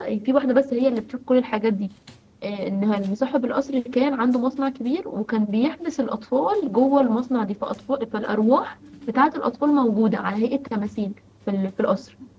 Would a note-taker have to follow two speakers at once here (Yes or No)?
No